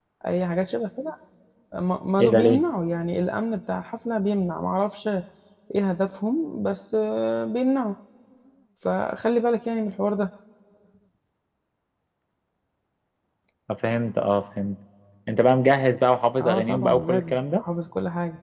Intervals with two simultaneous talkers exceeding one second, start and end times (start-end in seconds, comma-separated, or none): 16.4-17.6